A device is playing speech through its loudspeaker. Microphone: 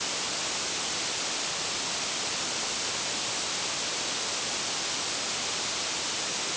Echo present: No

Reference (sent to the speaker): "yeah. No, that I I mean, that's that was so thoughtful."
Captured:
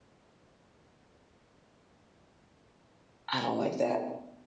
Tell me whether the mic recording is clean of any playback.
Yes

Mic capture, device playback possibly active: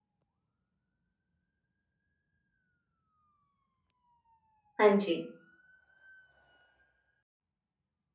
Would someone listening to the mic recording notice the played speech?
No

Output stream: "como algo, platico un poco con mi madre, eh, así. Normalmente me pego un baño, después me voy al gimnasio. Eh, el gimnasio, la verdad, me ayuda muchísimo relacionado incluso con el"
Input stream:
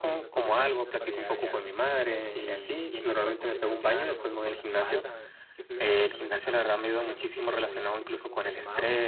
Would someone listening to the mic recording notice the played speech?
Yes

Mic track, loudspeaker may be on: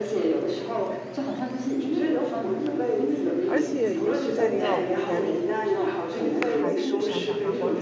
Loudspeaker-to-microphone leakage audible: Yes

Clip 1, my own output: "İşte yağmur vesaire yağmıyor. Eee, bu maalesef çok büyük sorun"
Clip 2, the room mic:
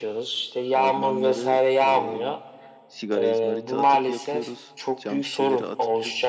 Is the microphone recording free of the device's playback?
No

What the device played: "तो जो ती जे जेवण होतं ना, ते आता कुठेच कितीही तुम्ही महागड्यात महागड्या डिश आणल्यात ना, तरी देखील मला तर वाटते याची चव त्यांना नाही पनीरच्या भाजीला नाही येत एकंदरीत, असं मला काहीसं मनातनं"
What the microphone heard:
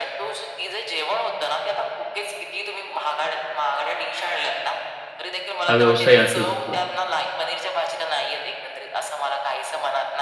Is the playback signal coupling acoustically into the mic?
Yes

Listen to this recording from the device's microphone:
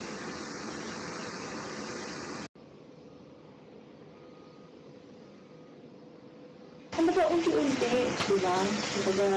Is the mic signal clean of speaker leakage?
Yes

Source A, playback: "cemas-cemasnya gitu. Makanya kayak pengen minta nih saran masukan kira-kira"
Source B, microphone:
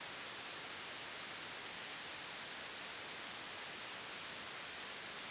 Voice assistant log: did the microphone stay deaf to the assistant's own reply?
Yes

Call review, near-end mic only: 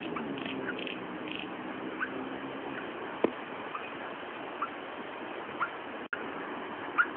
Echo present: No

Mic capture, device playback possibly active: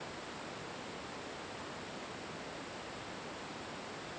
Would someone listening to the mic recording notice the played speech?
No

